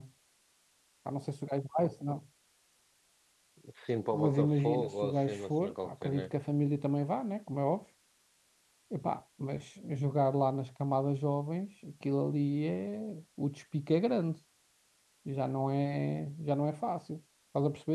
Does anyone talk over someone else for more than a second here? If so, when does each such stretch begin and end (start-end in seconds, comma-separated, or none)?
4.1-6.3